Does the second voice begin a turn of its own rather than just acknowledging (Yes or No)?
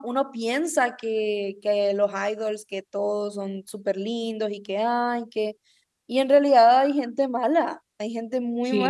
Yes